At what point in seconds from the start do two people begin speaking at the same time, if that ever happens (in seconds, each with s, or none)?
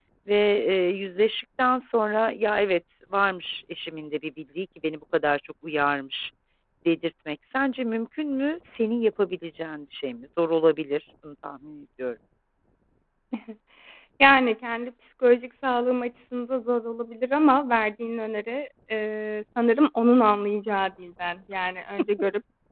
none